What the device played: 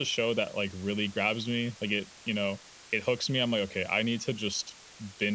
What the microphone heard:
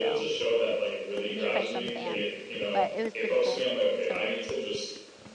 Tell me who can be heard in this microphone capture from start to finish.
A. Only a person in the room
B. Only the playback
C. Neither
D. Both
D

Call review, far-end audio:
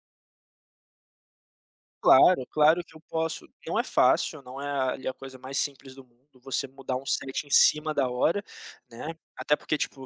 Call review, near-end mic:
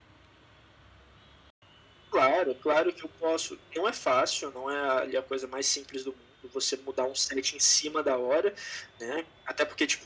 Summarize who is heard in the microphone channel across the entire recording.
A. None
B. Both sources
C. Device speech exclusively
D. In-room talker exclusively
C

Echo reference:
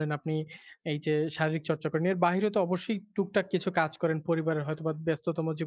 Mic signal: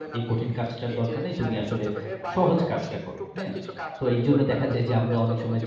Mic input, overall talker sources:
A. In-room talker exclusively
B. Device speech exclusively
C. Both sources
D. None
C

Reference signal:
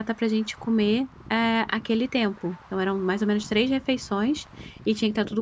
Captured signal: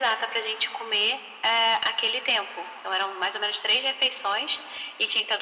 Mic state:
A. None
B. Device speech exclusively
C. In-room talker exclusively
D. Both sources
B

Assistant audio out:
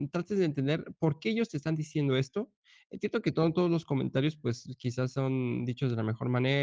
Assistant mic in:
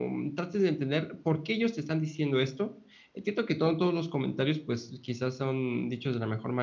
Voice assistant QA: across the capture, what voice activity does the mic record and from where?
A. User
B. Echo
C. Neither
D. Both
B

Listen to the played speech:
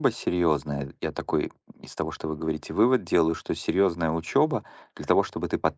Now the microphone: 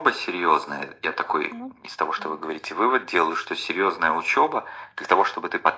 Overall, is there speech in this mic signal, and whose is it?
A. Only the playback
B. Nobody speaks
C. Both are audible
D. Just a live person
C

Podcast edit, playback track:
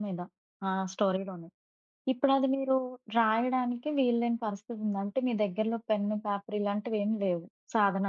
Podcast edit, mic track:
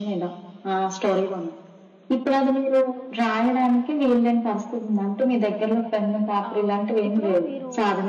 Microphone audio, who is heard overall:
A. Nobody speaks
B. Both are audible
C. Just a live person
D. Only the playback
B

